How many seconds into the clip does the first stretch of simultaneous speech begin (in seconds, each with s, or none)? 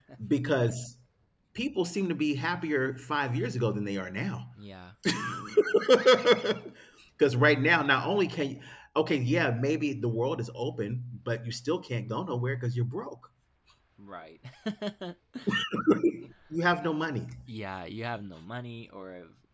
none